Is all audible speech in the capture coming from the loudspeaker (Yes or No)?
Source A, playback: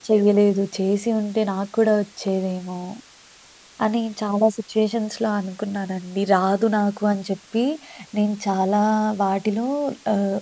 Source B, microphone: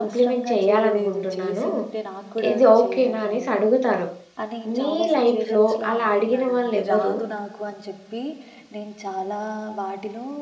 No